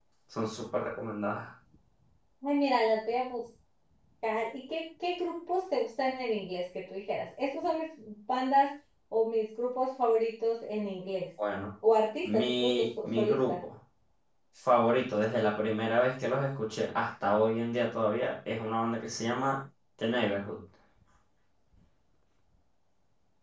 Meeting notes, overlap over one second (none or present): present